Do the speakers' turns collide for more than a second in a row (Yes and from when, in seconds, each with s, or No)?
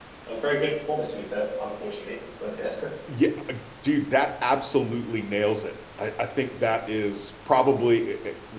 No